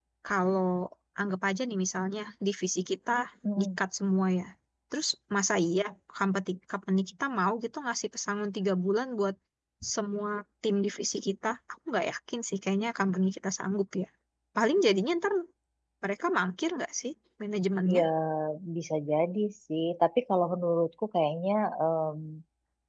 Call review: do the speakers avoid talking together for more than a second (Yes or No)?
Yes